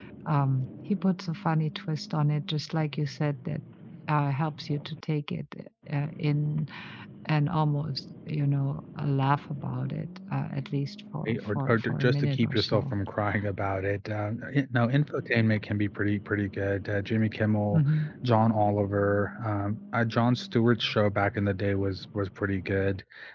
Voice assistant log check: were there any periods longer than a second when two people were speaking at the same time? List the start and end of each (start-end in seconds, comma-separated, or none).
11.2-12.9